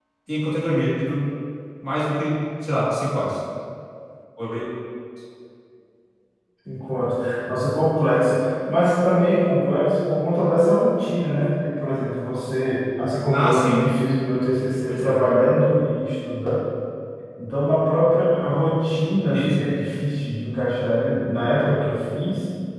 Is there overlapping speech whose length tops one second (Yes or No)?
No